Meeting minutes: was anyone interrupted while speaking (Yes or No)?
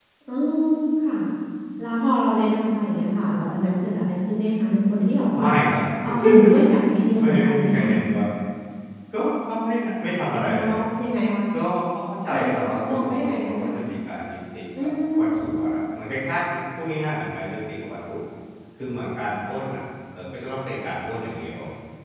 Yes